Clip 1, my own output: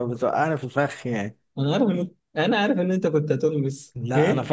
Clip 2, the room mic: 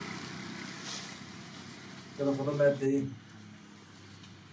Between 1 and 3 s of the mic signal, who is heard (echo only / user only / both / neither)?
user only